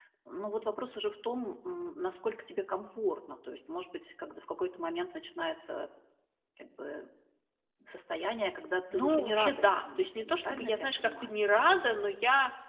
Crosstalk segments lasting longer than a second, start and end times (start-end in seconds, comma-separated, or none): 8.9-11.3